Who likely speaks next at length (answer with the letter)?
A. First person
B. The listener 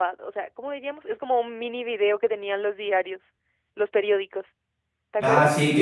B